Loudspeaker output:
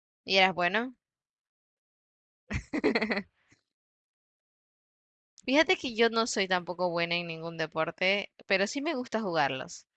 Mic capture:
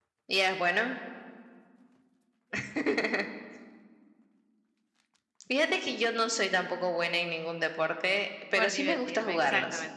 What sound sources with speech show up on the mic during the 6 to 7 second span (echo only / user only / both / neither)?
echo only